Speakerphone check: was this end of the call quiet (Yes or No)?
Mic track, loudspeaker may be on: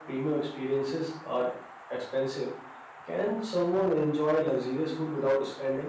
No